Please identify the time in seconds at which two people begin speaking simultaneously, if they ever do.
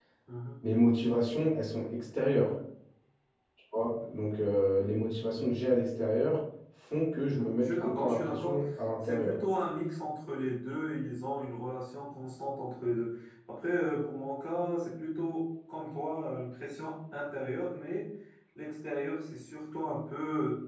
7 s

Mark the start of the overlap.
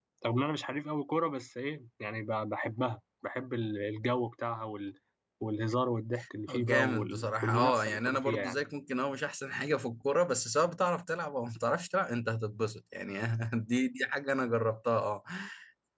6 s

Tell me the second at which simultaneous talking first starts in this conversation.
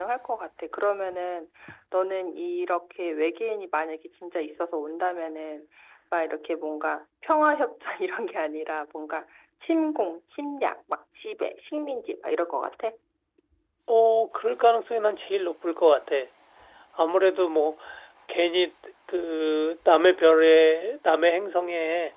none

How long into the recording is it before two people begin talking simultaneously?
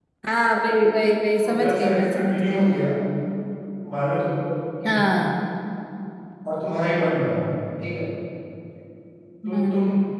1 s

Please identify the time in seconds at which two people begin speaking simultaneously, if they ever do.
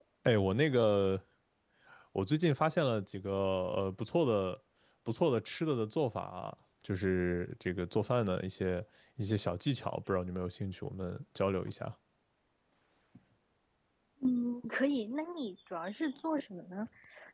none

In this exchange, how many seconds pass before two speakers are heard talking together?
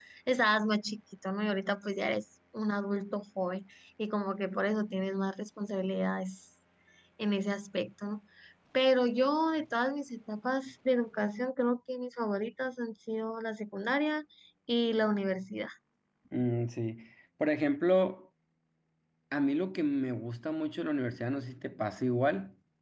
none

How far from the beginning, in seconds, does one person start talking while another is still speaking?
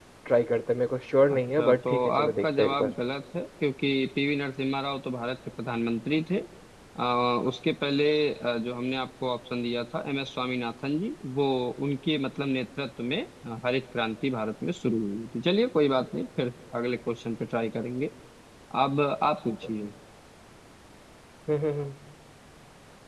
1 s

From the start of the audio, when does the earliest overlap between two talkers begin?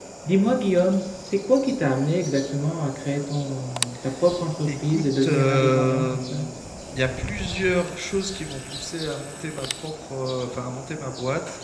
5 s

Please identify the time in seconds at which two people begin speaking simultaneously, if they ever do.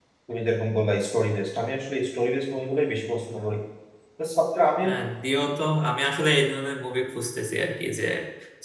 none

